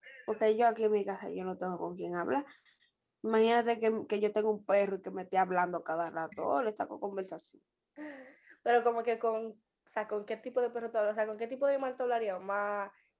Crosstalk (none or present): none